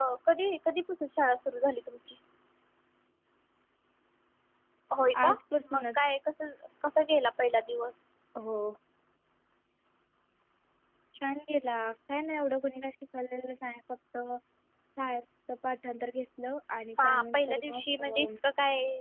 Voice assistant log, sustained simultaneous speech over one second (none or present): present